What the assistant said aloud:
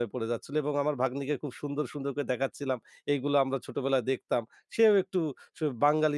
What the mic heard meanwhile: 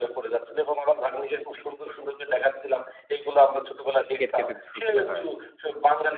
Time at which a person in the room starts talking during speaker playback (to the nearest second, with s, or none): 4 s